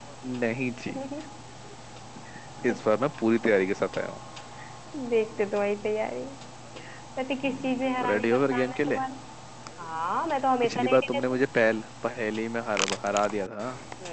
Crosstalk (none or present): present